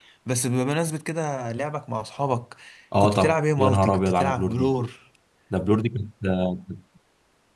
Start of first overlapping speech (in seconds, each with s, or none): 3.0 s